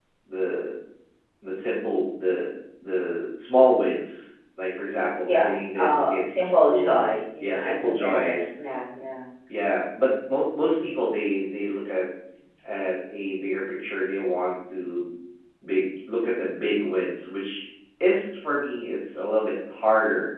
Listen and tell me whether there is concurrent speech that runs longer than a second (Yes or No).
Yes